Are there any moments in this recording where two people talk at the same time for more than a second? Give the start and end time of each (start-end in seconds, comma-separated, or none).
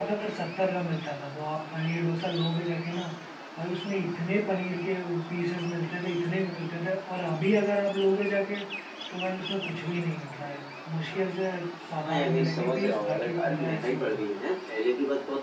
12.0-14.2